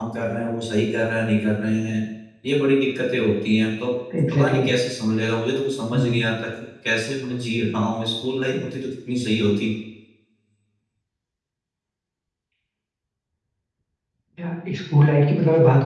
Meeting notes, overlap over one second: none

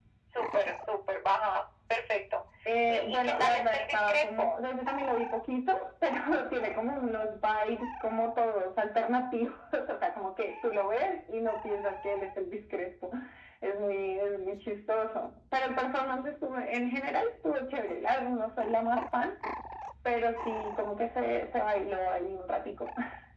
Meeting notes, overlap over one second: present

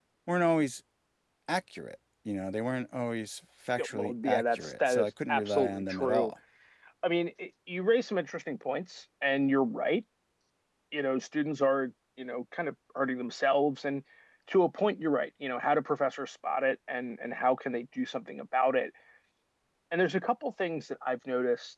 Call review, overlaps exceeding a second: present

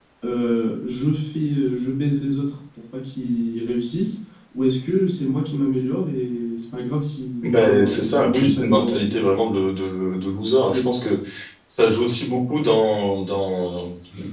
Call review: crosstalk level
present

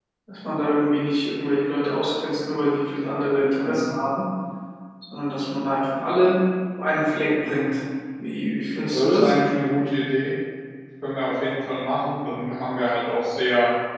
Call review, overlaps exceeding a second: none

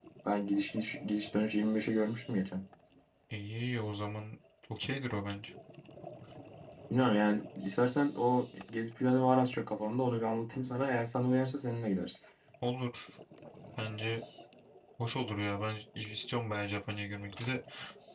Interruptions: none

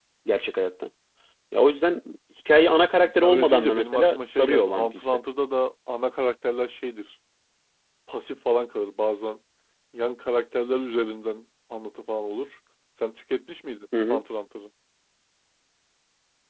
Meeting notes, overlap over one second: present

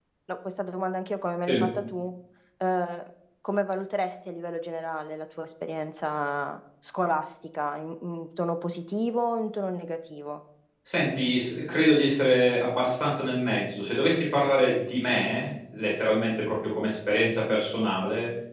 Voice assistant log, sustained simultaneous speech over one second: none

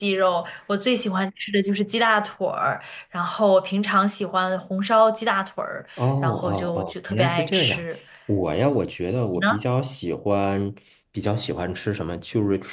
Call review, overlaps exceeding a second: present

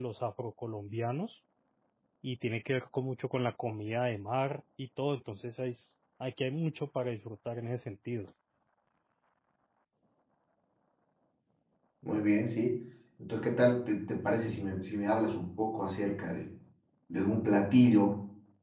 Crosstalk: none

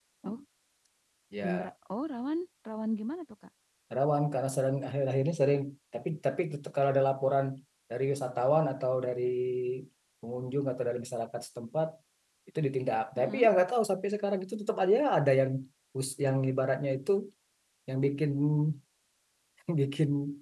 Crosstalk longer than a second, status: none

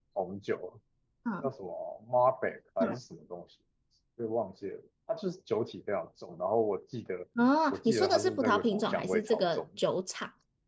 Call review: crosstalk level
present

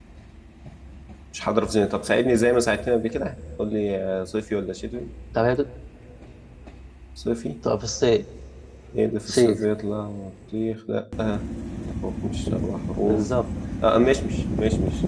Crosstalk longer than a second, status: none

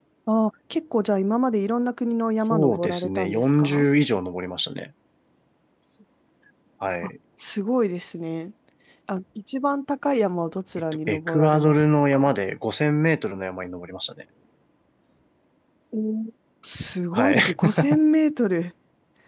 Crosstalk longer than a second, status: present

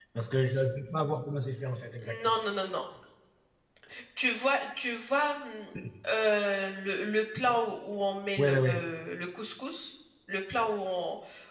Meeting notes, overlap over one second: none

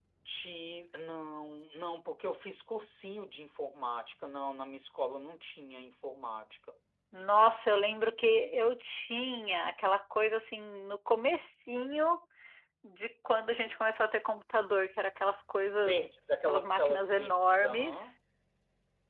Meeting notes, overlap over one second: present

